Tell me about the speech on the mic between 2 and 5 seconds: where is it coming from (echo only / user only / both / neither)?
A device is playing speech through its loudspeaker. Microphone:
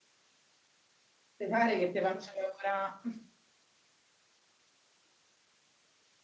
user only